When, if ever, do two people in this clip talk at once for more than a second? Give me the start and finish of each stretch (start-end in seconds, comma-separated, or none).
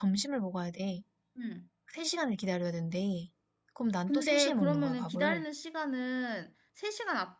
4.1-5.4